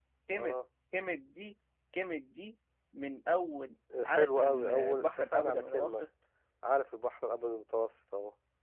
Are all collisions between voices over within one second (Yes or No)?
No